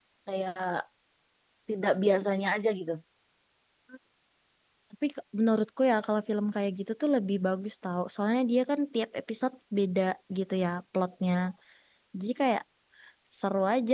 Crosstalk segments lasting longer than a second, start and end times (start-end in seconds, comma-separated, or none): none